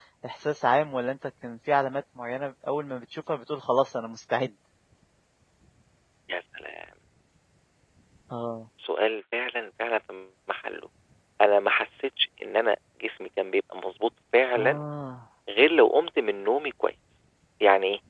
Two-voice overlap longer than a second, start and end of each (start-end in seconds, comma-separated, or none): none